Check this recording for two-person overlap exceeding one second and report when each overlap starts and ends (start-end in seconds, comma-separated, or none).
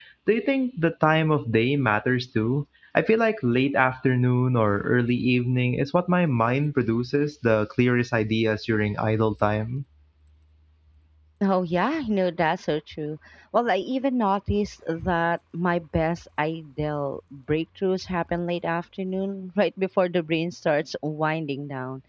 none